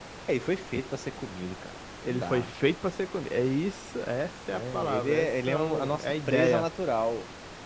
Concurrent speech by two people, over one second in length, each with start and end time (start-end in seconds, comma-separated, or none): 4.5-6.7